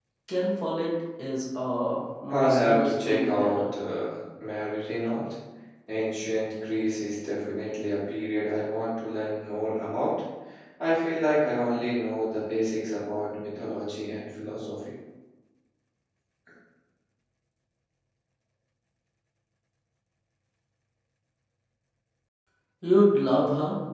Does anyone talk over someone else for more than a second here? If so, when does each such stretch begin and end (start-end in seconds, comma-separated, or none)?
2.3-3.6